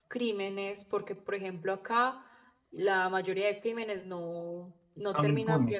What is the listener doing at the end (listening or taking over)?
listening